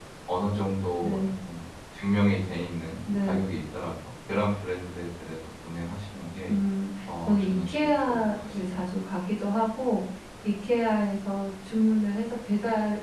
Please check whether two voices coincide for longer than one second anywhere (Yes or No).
Yes